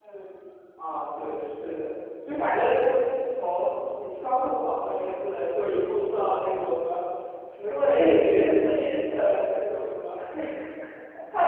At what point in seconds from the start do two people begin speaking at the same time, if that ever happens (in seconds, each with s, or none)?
7.7 s